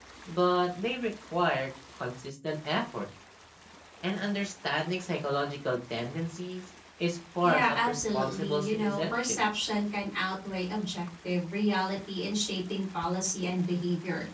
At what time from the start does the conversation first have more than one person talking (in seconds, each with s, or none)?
7.4 s